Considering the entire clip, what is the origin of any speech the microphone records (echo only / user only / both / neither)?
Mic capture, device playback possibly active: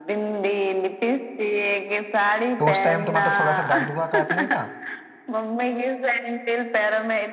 both